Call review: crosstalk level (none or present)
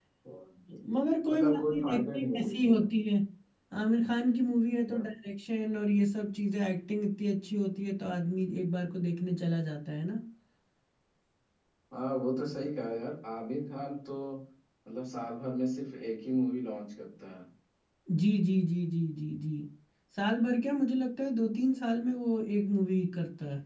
present